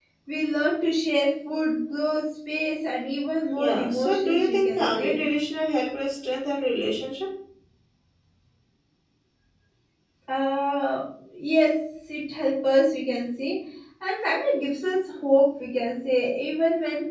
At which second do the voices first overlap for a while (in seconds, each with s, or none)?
3.6 s